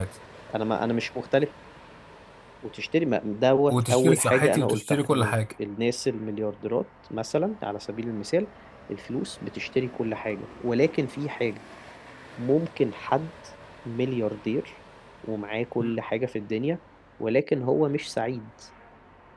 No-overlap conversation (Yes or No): No